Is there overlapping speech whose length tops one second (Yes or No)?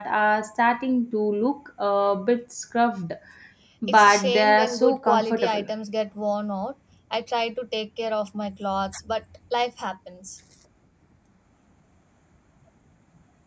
Yes